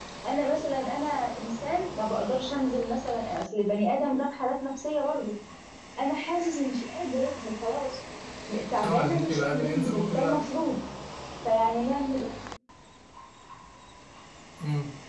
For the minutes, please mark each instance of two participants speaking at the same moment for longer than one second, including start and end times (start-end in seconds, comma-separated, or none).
8.8-10.3